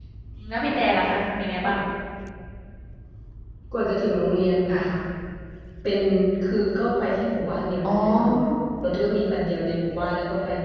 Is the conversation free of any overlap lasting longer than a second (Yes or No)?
Yes